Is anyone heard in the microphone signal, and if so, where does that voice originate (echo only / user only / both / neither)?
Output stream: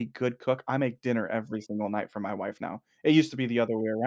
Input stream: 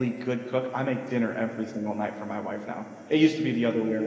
echo only